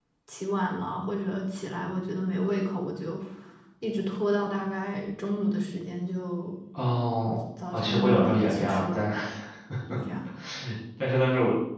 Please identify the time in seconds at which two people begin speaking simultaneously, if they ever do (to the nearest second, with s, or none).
8 s